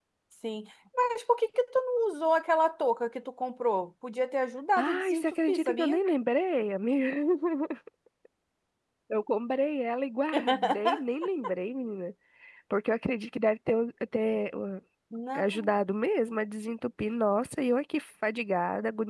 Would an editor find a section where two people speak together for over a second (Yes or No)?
Yes